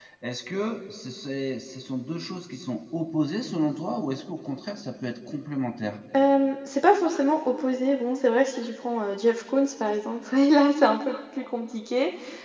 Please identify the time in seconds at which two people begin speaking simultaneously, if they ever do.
none

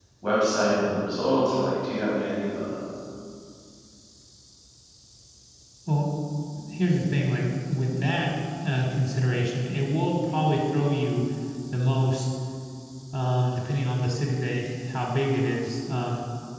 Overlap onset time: none

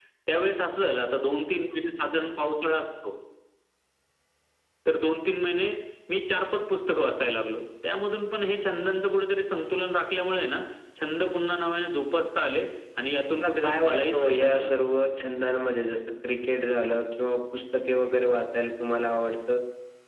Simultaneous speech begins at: 13.4 s

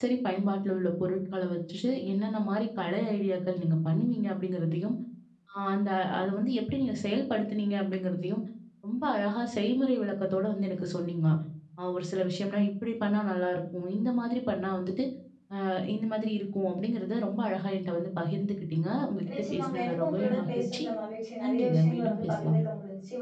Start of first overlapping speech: 19.3 s

